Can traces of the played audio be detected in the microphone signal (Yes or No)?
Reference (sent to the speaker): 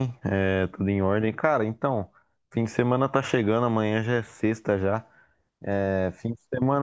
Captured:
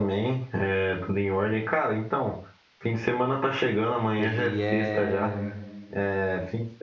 Yes